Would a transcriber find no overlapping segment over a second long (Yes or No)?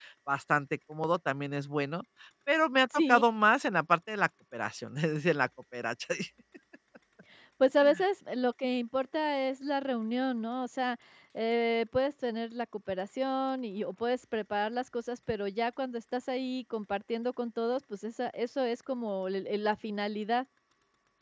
Yes